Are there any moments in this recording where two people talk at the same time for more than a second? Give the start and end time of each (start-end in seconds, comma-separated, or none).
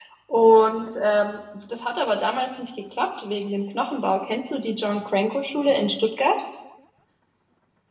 none